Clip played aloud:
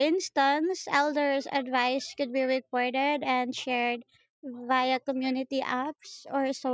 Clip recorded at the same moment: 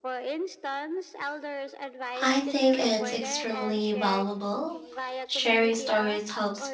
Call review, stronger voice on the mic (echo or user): user